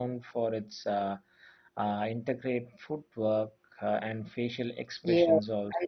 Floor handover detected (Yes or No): Yes